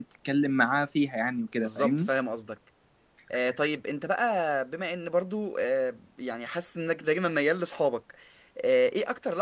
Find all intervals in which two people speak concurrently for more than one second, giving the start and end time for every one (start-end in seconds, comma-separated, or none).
none